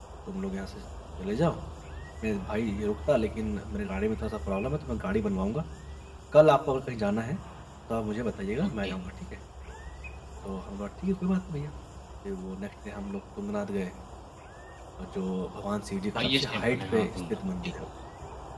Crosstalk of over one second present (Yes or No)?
Yes